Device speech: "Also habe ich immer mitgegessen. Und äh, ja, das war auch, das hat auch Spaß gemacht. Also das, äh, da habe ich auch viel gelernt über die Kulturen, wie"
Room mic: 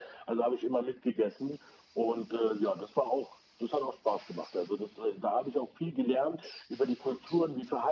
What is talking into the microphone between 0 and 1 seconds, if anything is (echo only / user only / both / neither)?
echo only